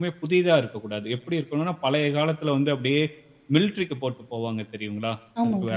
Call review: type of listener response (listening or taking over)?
listening